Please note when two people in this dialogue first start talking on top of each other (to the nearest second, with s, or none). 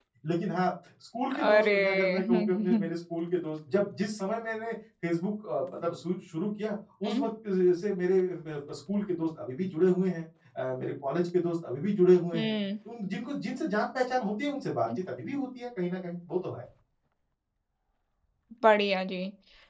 1 s